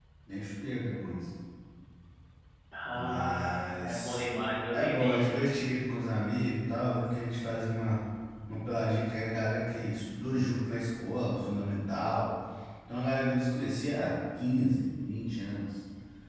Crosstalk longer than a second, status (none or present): present